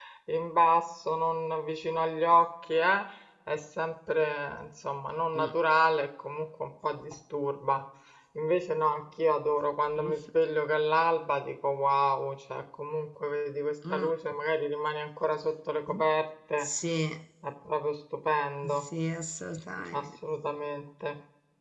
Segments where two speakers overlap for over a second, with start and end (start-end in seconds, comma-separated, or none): none